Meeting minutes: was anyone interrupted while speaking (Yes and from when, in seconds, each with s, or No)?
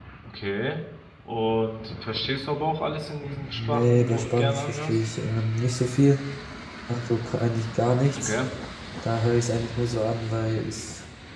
Yes, from 3.4 s